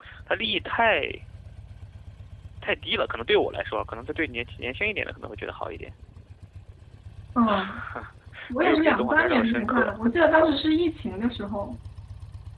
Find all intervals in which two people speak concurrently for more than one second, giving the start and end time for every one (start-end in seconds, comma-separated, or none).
8.6-9.9